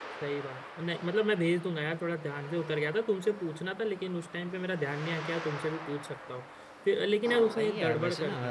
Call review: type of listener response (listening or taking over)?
taking over